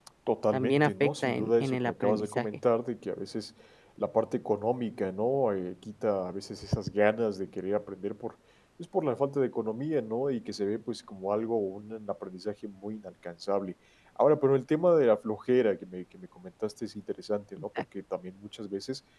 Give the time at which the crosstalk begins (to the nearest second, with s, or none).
1 s